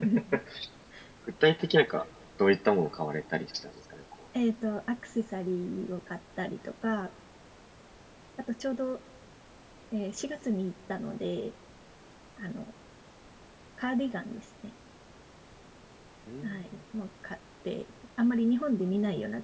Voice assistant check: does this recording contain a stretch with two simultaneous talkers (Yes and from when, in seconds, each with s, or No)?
No